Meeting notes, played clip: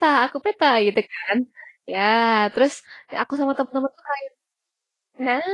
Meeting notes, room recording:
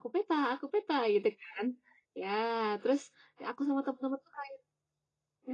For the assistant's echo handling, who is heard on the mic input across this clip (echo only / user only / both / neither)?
echo only